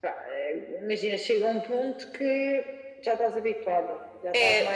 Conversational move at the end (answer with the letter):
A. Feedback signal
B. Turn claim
B